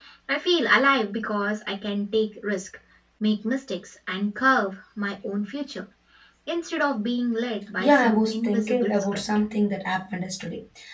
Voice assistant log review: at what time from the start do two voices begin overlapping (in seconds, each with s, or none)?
7.8 s